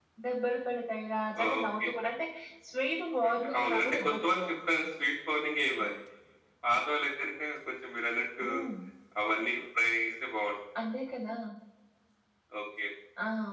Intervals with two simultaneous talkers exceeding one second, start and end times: 3.3-4.6

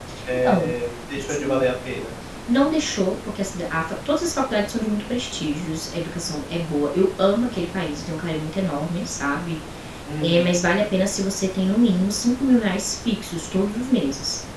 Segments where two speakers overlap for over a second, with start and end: none

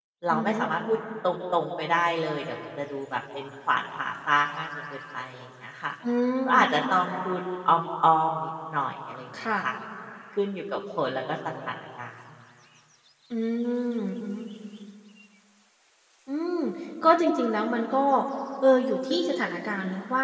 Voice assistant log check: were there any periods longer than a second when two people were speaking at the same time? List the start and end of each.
none

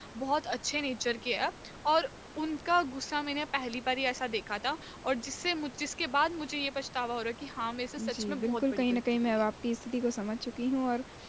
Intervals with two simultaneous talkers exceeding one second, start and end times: 8.0-9.4

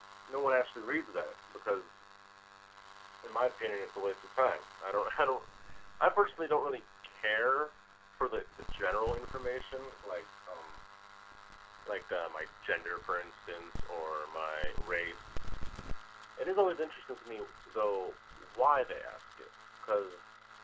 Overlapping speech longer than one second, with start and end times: none

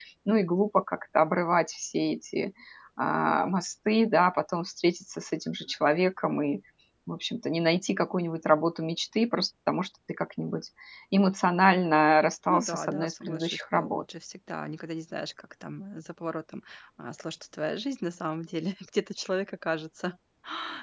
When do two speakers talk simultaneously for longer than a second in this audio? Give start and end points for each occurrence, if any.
12.5-14.0

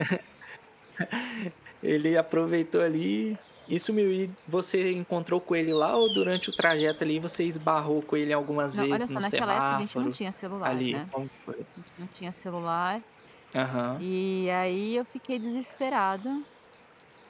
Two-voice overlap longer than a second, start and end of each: 8.7-10.2

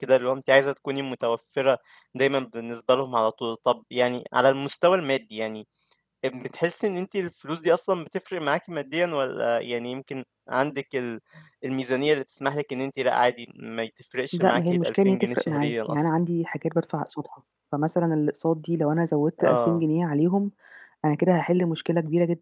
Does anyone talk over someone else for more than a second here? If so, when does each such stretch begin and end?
14.3-16.1

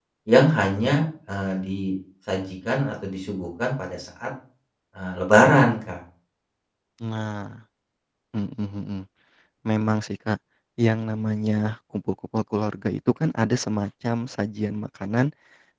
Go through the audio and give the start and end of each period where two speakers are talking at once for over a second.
none

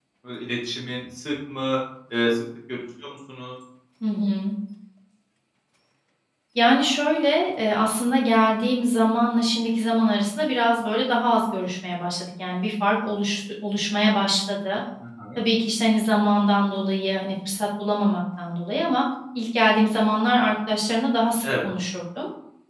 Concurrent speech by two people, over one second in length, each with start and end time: none

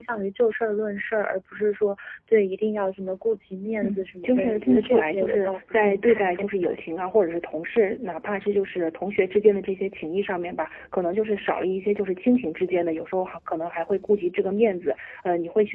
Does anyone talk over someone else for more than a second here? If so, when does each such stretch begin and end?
3.8-6.8

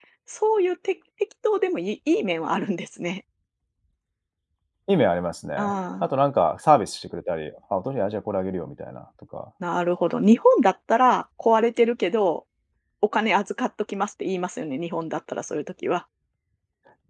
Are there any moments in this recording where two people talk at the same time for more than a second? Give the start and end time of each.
none

